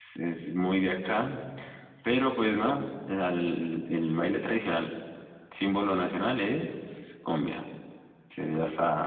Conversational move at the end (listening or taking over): taking over